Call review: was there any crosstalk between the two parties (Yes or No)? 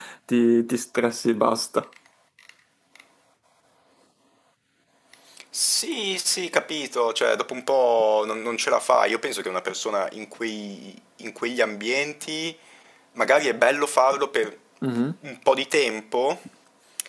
No